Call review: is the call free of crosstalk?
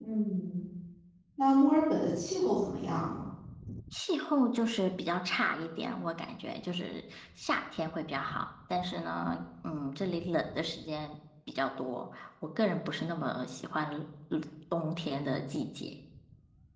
Yes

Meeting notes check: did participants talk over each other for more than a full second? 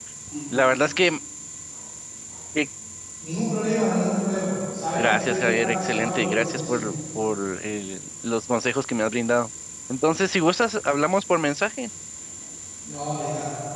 Yes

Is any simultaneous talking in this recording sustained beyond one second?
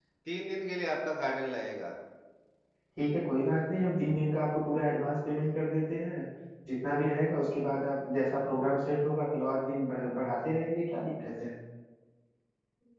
No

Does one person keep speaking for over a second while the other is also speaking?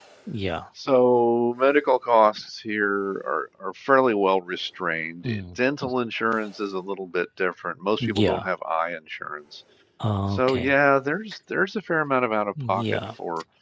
No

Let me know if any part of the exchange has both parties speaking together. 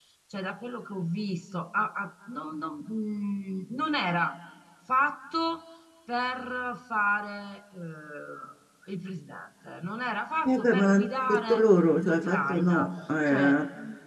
Yes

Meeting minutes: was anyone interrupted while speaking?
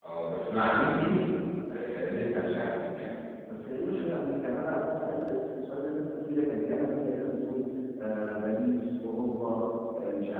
No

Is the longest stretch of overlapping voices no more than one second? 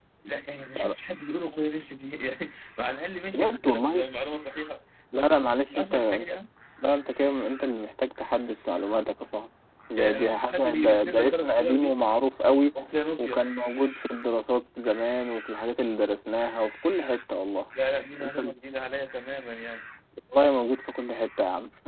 No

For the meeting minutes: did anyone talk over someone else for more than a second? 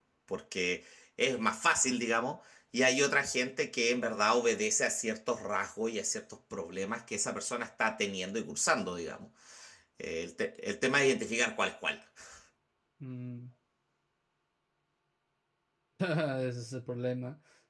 No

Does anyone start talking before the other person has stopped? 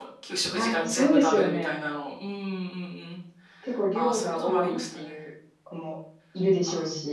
Yes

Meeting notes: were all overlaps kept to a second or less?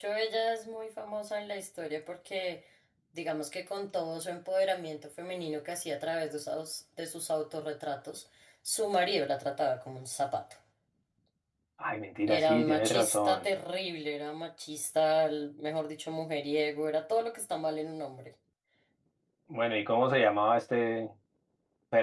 No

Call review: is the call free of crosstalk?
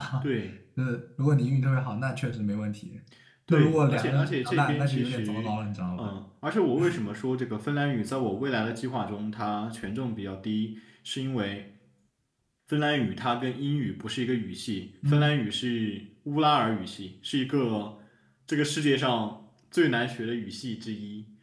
No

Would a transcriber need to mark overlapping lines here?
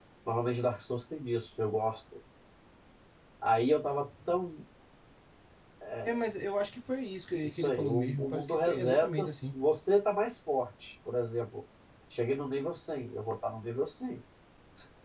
Yes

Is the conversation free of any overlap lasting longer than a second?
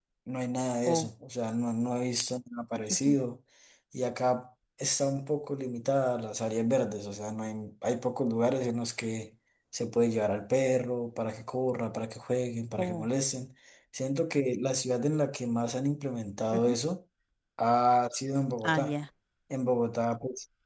Yes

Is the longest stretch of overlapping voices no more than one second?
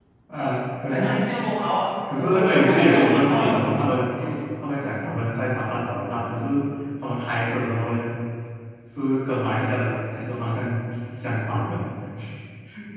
No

